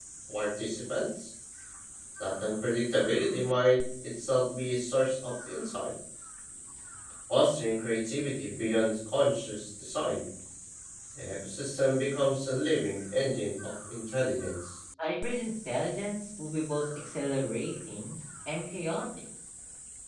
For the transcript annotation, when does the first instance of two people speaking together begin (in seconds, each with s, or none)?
none